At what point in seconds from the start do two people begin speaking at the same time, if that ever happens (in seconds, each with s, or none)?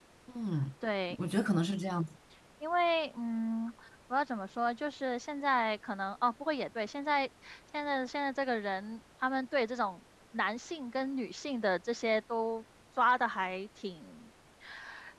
none